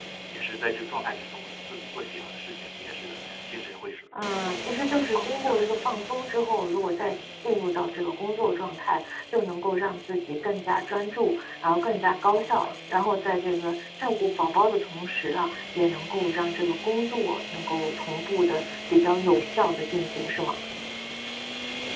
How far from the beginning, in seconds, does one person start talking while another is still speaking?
4.1 s

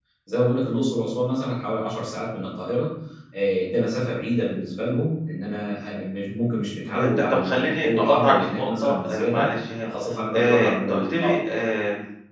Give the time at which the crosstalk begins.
6.9 s

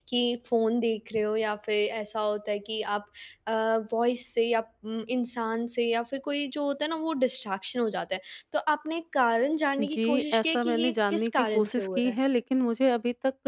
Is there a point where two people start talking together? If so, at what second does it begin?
9.8 s

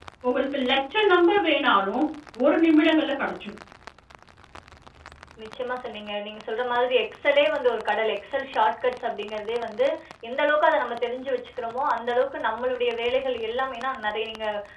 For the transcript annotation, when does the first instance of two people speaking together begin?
none

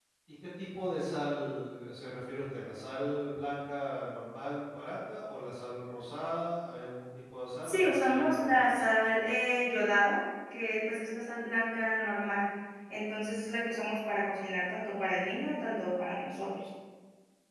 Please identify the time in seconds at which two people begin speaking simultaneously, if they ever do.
7.6 s

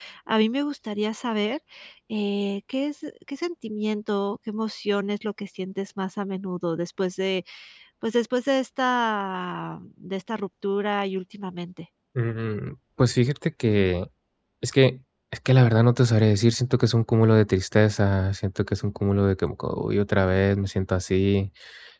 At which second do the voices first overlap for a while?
none

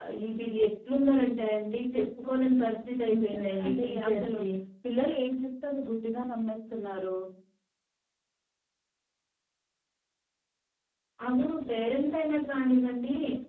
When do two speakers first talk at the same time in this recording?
3.1 s

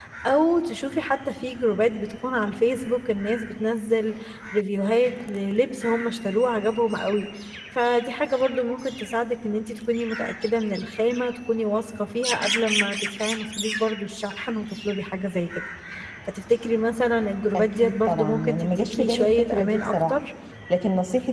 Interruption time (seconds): 17.5 s

